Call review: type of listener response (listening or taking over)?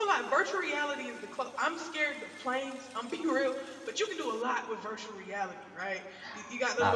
listening